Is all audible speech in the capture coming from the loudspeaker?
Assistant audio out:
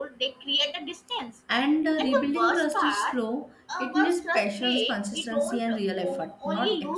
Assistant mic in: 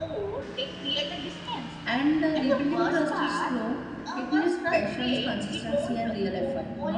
Yes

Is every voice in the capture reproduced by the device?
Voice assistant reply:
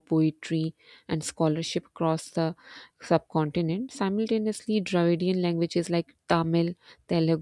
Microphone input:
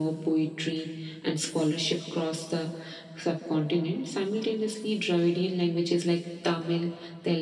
Yes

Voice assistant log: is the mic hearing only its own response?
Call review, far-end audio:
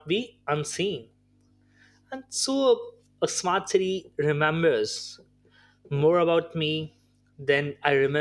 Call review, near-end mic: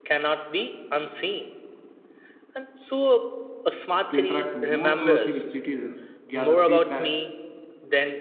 No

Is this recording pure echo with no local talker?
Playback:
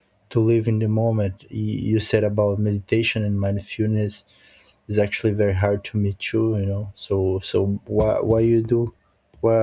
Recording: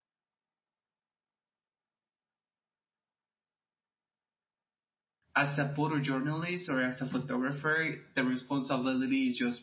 No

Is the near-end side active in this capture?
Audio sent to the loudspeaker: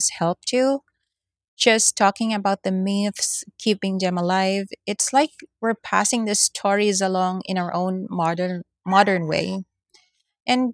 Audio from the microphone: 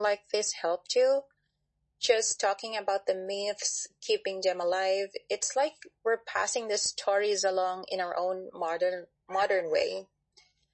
No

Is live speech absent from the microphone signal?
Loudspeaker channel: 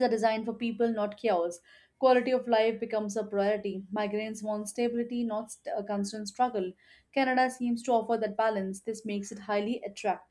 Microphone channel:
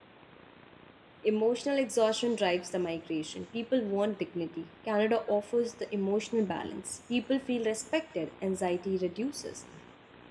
No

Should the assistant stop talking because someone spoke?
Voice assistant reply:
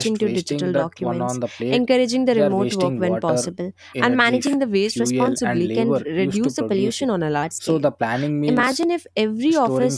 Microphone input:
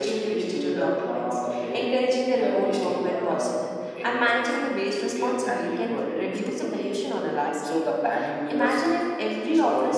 Yes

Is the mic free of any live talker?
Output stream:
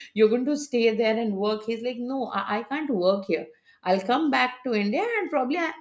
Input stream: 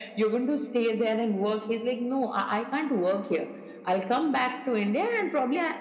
Yes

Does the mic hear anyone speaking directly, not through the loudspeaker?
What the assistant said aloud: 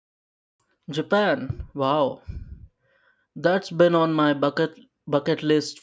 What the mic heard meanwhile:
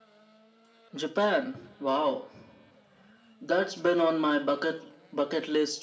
No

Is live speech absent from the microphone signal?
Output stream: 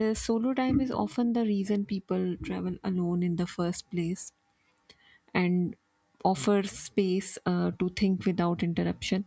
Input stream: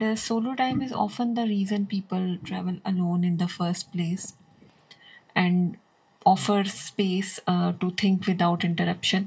Yes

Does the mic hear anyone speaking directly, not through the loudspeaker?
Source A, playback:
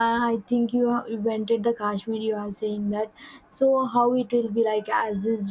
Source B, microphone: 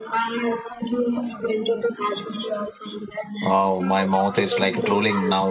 Yes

